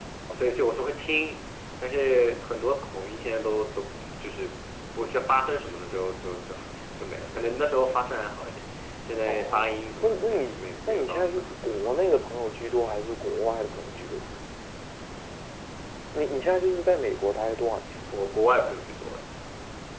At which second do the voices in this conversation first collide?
9.3 s

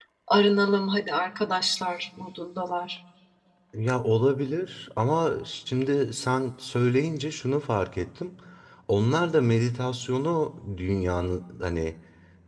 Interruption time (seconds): none

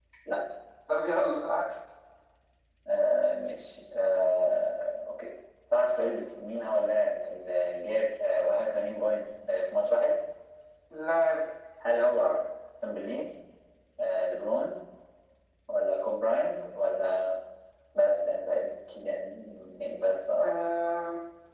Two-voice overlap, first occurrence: none

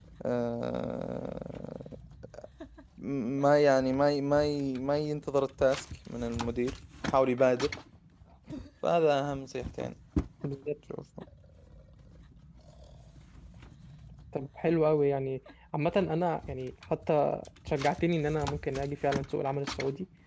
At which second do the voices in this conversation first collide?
none

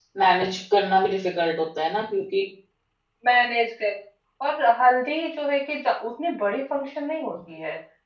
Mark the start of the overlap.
none

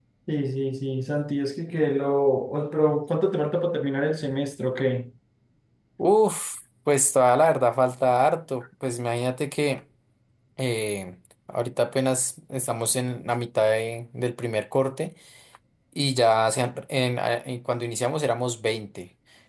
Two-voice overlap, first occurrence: none

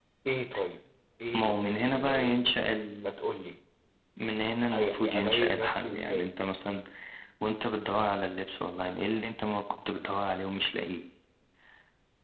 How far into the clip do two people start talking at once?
1.4 s

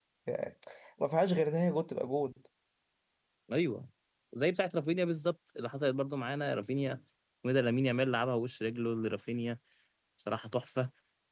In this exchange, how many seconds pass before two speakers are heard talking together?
none

